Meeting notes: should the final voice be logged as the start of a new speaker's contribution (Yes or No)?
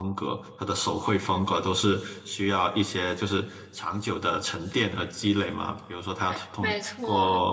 No